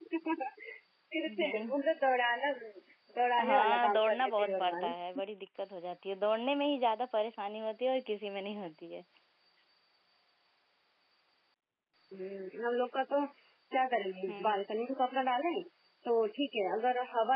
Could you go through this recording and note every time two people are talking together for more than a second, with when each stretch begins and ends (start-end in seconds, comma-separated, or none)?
3.5-4.8